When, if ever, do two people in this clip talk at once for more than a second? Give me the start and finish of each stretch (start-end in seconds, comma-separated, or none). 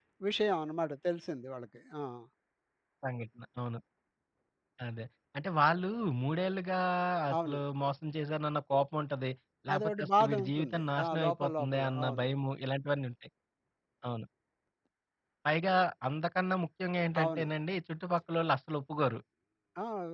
9.7-12.2